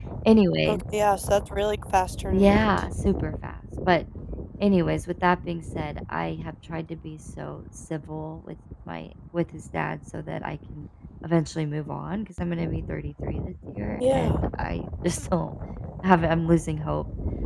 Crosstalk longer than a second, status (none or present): none